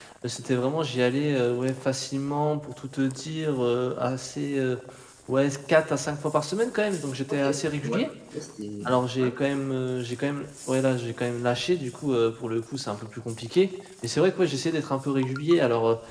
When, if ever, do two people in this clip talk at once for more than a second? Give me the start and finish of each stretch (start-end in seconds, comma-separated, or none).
none